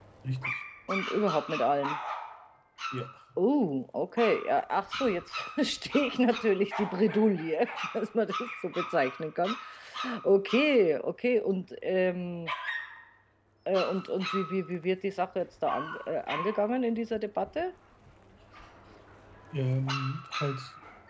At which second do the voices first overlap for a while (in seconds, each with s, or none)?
none